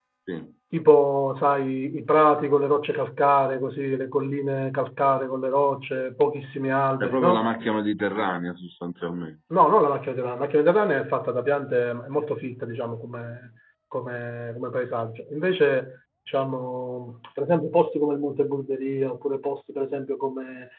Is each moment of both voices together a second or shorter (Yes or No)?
Yes